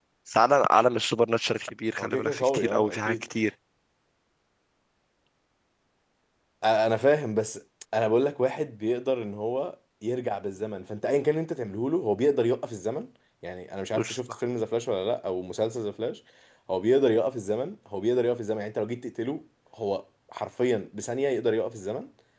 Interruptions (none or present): present